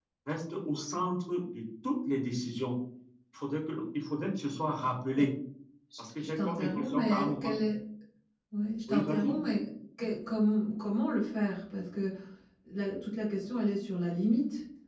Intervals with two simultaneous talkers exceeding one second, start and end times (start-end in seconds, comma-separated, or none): 6.0-7.6